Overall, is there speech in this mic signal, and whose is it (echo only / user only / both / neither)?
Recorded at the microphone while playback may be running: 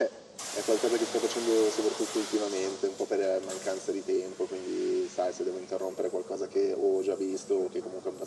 echo only